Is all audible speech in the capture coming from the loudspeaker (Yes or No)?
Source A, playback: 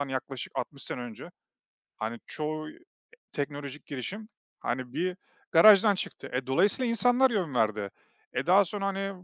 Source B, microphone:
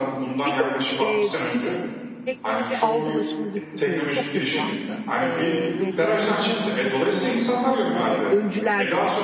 No